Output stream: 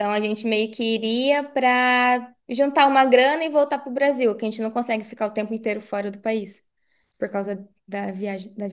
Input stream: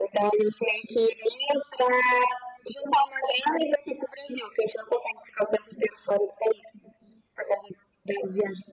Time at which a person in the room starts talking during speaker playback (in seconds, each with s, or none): none